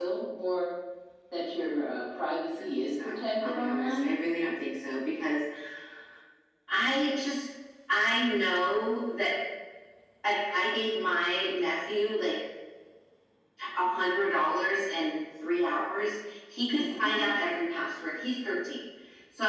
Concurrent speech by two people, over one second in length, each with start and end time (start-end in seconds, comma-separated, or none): 2.6-4.1